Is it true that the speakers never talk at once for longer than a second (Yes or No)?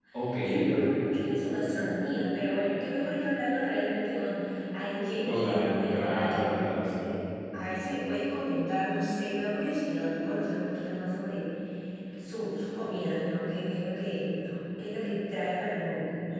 No